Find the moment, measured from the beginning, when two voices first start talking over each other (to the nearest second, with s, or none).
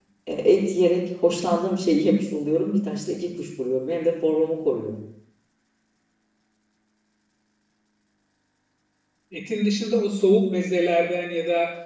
none